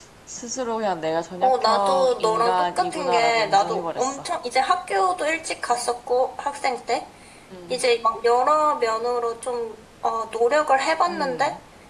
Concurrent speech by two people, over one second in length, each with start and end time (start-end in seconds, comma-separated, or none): 1.4-4.2